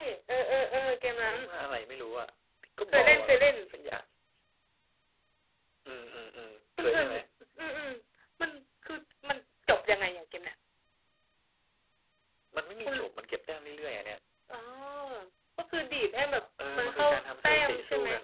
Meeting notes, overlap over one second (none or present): present